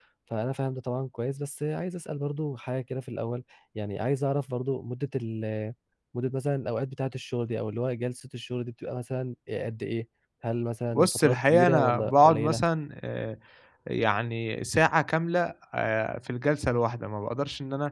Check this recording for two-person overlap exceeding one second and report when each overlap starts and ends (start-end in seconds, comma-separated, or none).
10.9-12.6